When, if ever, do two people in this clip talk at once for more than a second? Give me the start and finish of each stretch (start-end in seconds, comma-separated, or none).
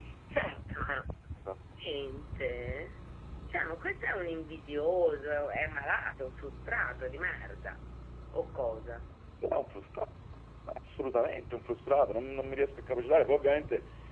none